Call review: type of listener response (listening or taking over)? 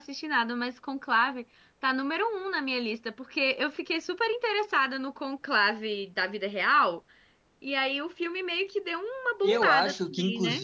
taking over